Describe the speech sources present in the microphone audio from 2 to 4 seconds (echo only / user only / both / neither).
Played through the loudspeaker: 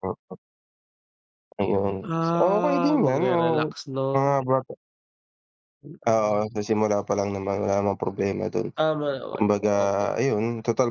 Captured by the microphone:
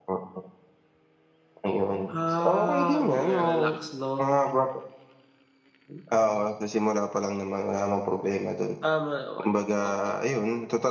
echo only